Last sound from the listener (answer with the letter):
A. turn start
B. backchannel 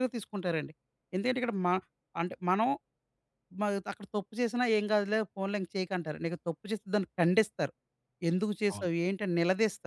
B